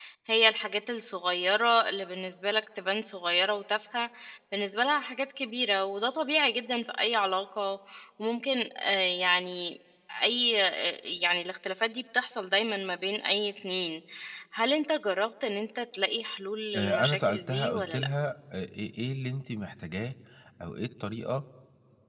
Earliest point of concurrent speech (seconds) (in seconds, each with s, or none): 16.7 s